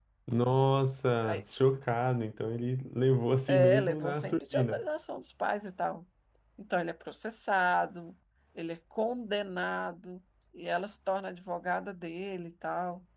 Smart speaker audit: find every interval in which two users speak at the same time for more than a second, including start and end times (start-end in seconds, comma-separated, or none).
3.5-4.8